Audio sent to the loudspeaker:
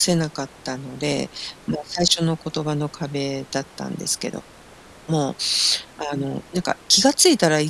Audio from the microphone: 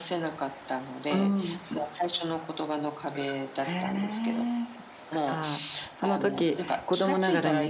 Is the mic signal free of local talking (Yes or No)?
No